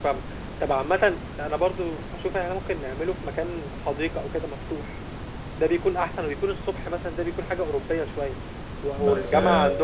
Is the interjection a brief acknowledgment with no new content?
Yes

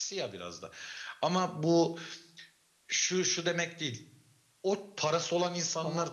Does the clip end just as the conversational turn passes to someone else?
No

